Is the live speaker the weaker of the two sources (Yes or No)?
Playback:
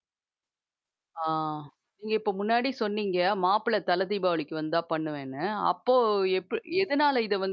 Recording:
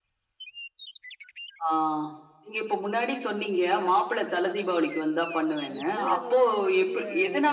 Yes